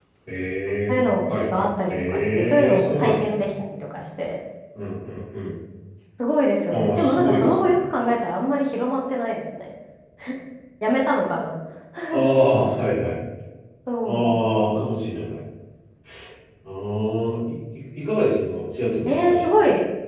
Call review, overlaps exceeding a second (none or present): present